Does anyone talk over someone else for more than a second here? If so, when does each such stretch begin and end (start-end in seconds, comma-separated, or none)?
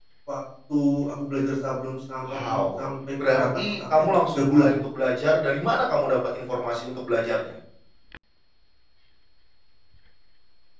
3.2-4.7